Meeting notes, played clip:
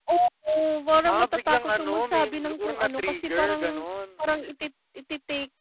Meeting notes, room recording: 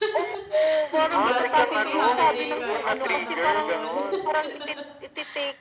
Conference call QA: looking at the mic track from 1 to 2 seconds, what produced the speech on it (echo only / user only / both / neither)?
both